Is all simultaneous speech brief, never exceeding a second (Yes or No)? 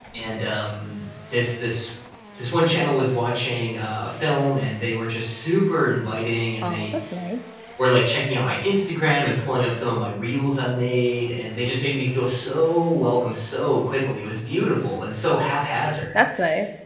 Yes